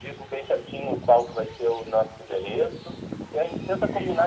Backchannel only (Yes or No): Yes